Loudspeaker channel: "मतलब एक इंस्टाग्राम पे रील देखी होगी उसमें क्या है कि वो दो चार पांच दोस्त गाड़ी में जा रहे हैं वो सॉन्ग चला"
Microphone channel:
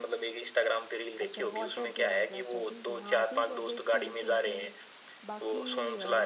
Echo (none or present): present